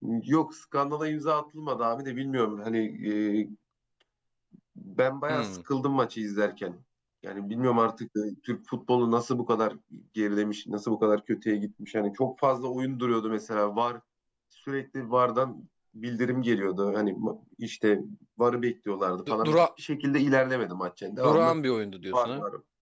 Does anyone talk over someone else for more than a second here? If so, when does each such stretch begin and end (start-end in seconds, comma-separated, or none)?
none